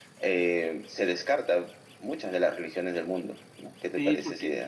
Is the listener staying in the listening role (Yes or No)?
No